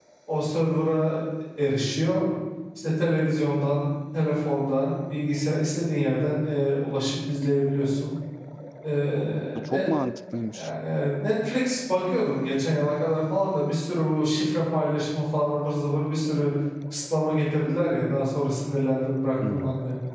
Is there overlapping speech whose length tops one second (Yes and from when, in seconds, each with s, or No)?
No